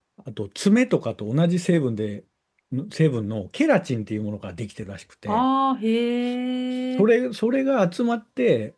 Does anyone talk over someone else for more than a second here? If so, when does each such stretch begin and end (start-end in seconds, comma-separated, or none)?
none